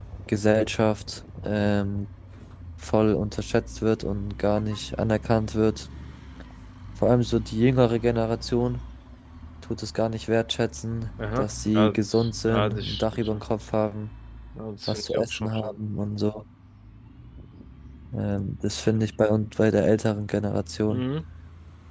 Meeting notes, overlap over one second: present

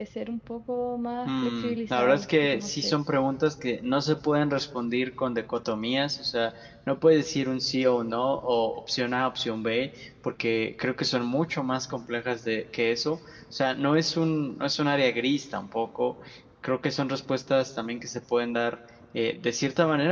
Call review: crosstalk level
present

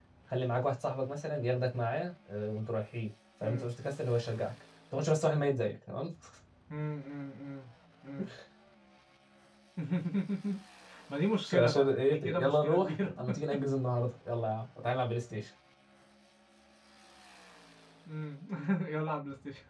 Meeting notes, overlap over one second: present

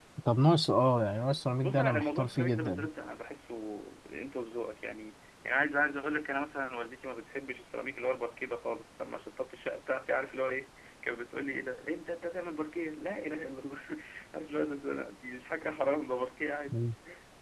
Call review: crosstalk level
present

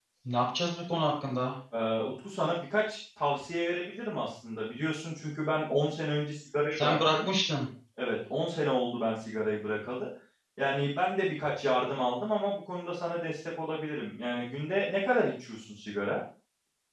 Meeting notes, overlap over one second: none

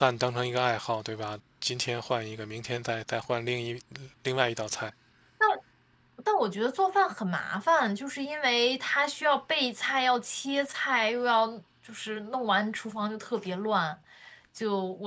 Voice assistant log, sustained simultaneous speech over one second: none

